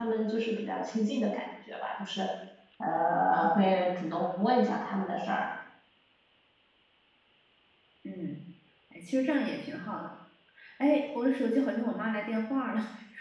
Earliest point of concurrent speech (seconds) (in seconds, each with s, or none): none